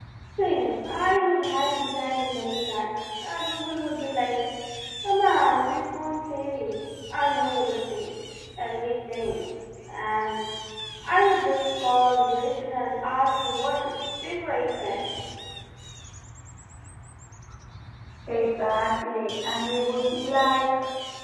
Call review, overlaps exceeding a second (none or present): none